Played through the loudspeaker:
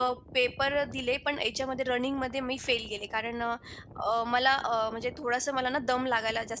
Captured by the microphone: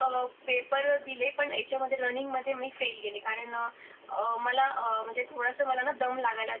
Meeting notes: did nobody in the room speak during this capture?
Yes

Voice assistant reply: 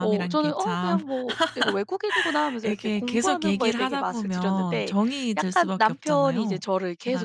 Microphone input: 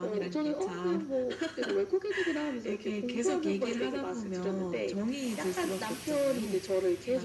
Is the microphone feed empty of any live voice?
Yes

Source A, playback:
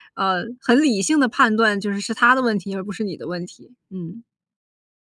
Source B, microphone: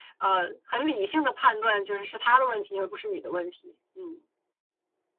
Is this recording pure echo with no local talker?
Yes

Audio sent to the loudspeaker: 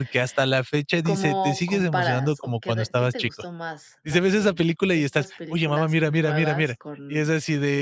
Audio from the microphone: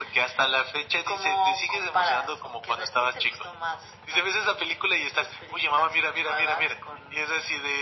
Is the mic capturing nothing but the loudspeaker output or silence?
Yes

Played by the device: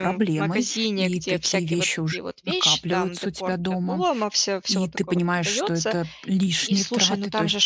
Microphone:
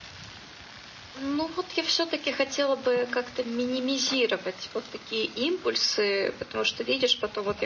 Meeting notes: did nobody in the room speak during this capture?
No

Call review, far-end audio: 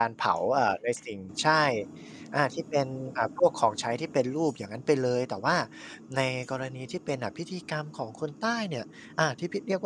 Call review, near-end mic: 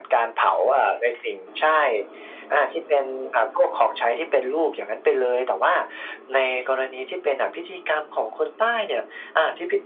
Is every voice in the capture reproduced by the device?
Yes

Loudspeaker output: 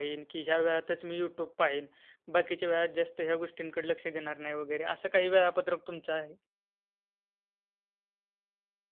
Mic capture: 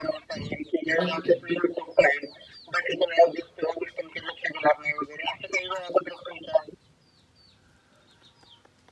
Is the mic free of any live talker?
No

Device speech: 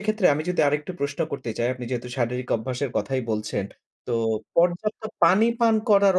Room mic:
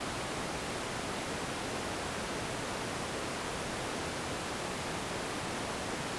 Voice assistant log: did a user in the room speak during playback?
No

